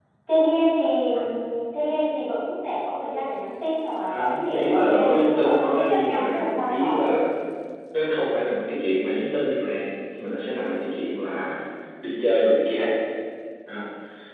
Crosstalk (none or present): present